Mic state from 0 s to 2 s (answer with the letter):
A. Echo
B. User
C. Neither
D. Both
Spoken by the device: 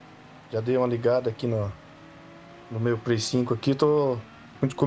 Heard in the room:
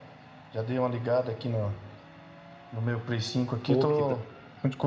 A